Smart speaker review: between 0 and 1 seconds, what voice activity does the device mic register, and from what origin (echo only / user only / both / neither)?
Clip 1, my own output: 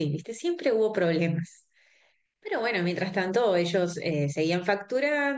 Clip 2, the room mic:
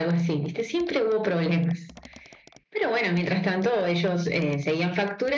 echo only